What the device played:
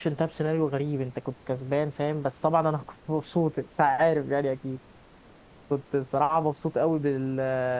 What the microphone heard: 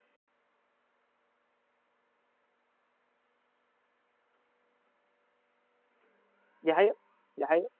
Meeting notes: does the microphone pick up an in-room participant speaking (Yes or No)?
Yes